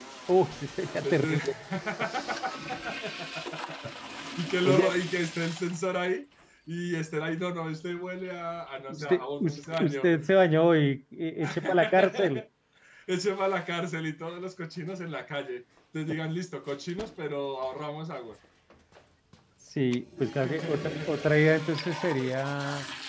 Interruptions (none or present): present